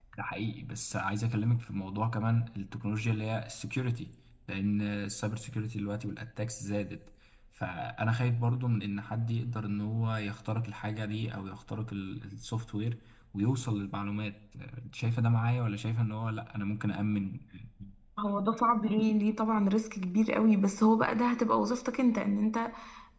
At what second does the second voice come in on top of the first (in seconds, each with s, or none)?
none